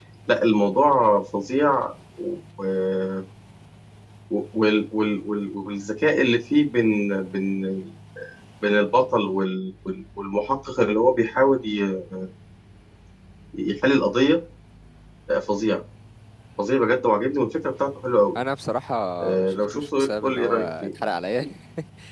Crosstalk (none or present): present